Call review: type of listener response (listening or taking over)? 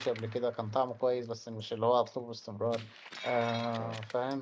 listening